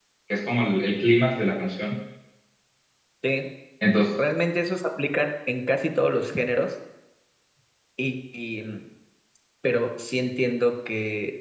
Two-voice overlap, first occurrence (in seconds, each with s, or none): none